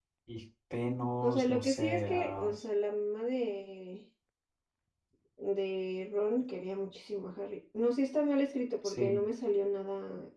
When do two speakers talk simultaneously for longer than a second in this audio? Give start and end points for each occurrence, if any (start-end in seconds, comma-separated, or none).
1.2-2.5